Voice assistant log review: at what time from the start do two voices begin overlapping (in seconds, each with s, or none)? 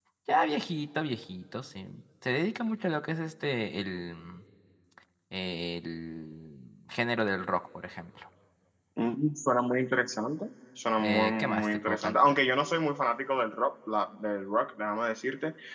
11.0 s